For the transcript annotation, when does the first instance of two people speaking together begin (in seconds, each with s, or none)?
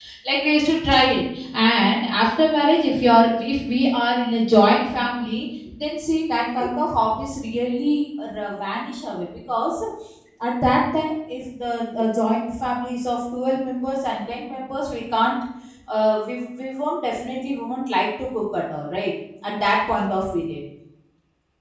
none